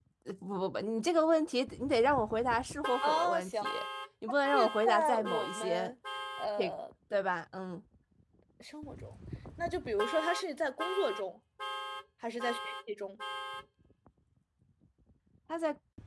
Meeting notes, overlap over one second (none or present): present